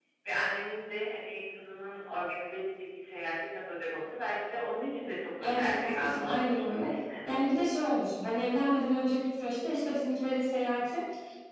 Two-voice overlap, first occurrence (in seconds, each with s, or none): 5.4 s